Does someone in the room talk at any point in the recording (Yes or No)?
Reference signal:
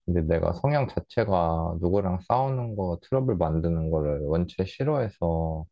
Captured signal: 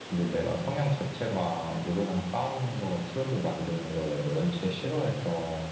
No